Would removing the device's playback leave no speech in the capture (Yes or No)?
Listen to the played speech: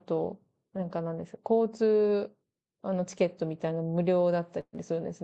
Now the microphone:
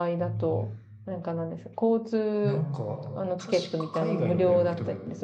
No